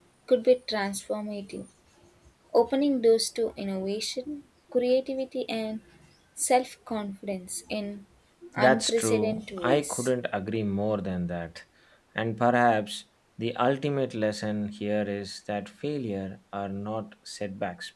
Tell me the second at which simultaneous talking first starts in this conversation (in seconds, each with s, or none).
8.6 s